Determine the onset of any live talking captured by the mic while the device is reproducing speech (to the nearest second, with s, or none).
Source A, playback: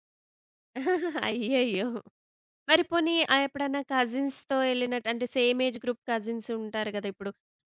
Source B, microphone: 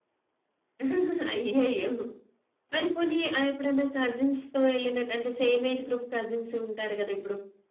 none